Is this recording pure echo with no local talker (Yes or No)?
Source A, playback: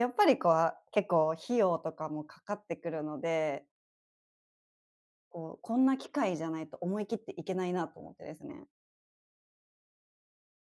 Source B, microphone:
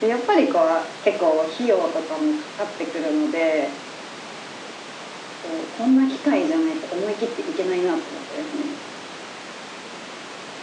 Yes